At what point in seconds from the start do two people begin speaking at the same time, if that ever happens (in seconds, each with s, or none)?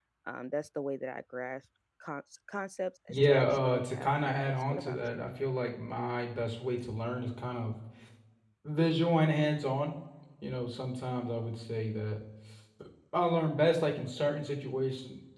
3.1 s